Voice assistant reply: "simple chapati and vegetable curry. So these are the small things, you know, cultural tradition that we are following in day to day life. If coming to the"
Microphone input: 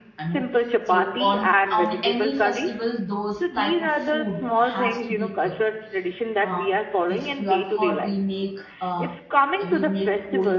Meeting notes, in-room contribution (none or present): present